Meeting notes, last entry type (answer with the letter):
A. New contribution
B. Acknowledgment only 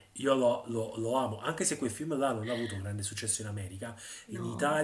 B